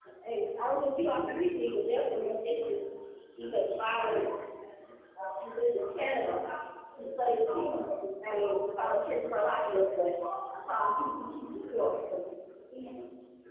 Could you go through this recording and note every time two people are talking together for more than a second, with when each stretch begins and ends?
none

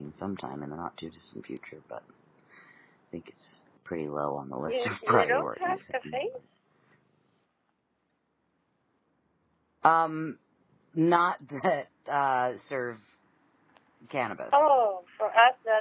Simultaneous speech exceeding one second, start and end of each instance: 4.6-6.2

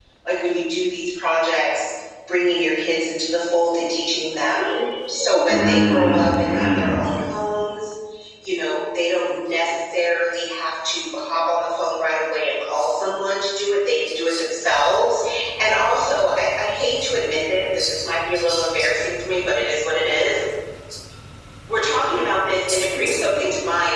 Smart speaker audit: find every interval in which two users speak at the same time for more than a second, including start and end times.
5.5-7.0

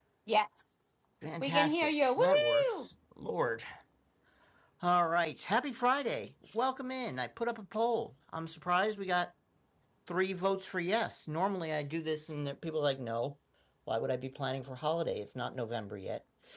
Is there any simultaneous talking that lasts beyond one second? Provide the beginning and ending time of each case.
1.4-2.9

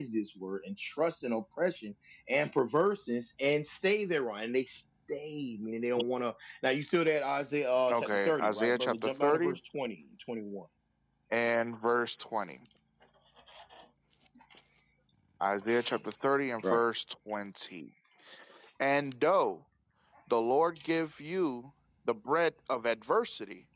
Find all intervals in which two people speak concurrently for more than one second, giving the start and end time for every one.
7.9-9.5

